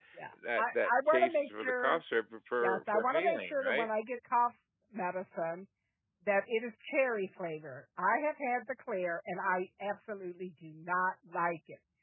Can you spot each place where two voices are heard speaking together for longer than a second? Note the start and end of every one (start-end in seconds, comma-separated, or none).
0.6-2.0, 2.6-3.9